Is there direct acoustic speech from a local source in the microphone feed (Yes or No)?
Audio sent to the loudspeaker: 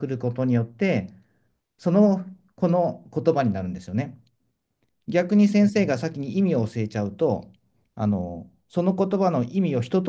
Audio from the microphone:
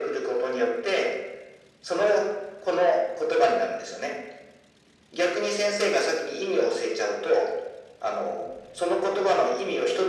No